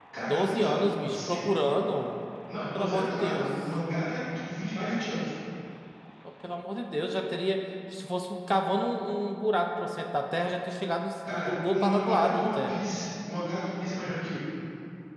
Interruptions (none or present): present